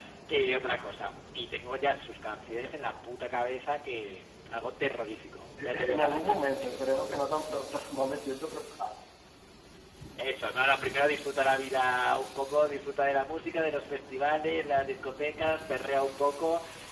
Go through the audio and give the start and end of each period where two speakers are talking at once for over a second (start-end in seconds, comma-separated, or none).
5.6-7.2